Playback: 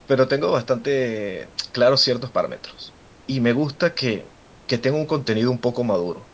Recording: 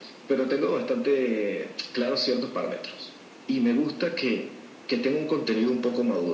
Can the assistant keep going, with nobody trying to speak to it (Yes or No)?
Yes